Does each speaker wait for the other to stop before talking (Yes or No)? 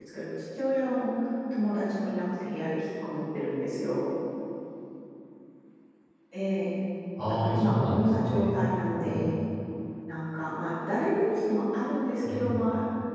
No